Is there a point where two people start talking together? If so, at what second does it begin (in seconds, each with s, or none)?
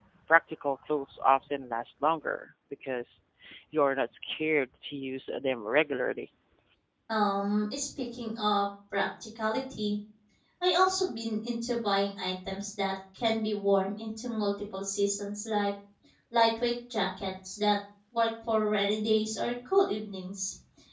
none